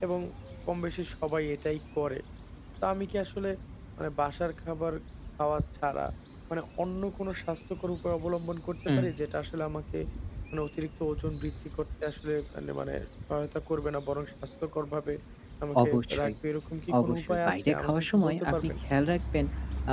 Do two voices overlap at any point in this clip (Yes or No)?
Yes